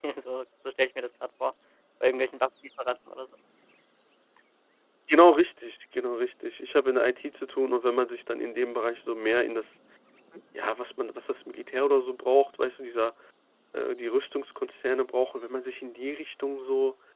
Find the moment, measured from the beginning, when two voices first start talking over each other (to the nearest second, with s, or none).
none